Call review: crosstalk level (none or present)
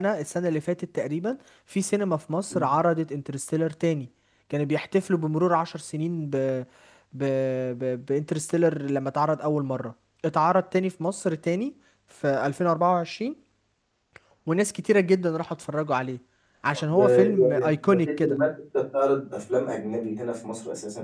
present